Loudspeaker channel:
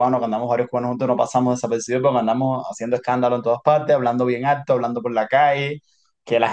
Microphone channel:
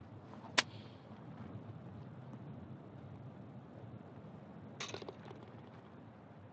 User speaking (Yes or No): No